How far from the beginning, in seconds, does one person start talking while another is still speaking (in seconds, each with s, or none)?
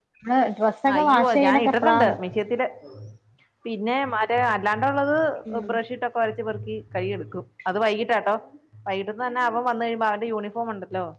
0.9 s